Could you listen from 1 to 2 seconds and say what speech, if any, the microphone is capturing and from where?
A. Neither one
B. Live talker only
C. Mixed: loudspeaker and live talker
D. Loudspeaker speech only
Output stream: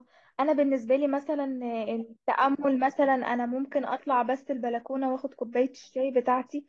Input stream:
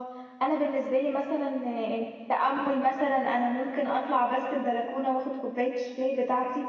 D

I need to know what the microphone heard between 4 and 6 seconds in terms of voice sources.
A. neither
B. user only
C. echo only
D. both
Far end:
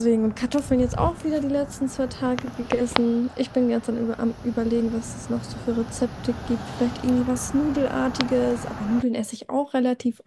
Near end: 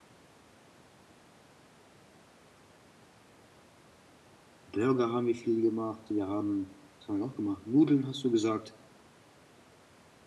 B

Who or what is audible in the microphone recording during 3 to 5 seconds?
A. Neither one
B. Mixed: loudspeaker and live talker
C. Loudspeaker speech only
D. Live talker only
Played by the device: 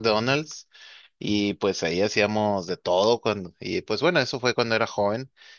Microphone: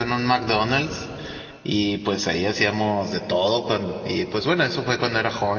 C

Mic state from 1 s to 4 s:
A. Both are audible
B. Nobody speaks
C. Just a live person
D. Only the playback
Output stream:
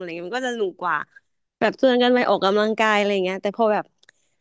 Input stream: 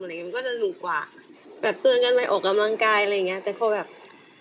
D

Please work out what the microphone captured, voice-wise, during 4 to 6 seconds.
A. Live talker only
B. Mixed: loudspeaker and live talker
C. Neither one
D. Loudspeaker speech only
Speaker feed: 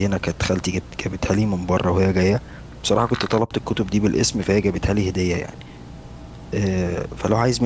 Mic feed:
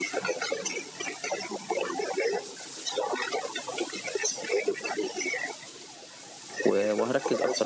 D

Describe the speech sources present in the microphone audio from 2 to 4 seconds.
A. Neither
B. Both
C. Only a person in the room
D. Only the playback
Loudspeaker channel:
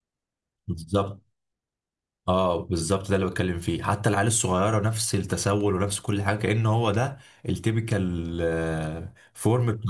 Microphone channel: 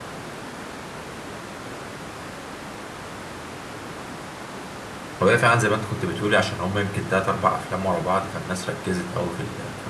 A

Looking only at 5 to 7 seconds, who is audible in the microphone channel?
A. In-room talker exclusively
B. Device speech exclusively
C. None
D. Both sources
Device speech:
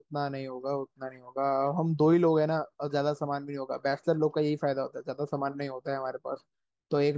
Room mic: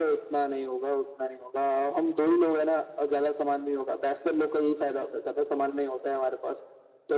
B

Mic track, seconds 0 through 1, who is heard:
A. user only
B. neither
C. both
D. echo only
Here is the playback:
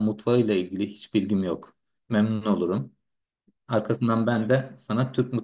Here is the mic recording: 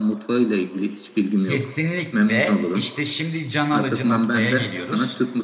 D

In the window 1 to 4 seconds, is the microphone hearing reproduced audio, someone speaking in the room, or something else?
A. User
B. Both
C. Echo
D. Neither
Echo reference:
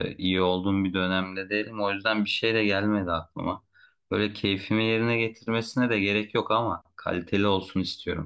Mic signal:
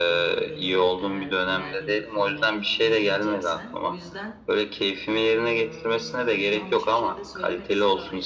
B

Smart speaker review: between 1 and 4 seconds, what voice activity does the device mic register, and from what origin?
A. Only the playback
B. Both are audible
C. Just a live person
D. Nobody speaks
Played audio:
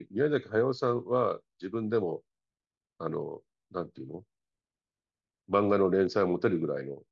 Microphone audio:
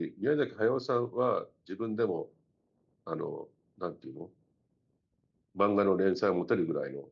A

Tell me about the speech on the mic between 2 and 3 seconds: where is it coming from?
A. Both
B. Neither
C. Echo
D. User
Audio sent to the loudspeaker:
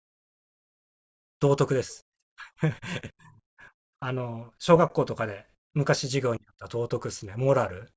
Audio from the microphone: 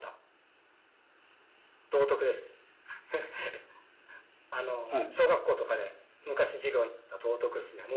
C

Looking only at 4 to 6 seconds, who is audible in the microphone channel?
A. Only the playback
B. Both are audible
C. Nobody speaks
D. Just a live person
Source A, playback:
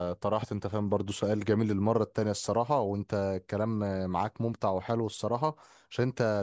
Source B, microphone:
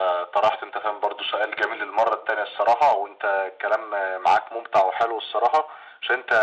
A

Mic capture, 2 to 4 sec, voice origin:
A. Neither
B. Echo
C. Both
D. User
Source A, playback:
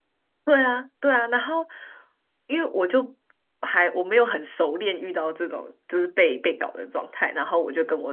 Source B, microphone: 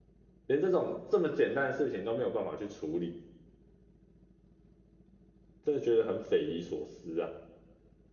D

